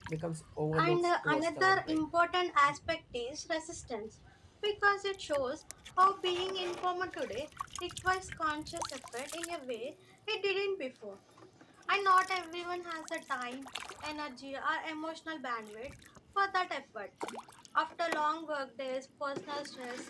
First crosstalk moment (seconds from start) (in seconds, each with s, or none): 0.8 s